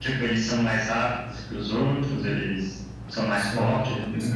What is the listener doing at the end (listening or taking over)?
taking over